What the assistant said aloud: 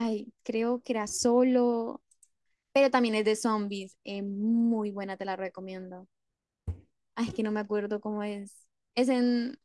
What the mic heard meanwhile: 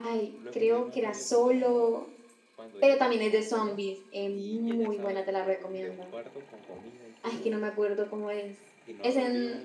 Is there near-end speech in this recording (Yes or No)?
Yes